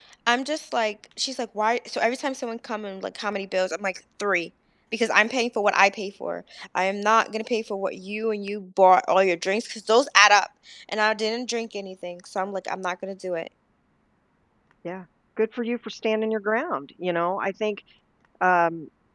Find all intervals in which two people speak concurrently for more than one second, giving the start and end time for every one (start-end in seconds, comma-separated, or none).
none